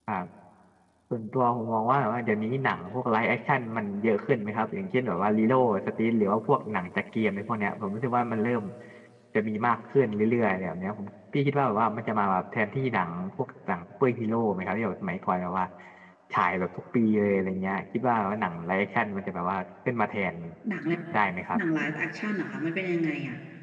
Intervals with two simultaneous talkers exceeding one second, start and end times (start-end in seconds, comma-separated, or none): none